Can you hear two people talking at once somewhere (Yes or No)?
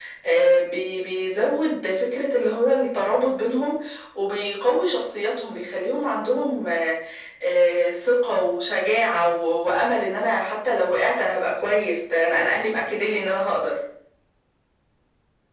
No